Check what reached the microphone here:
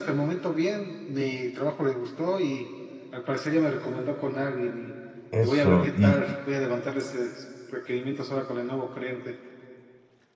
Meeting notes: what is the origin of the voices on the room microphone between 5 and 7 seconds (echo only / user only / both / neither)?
both